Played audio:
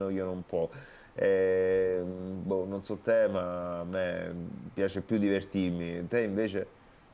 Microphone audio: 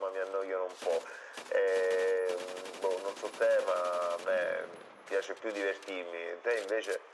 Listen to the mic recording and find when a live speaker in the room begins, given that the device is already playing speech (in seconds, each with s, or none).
none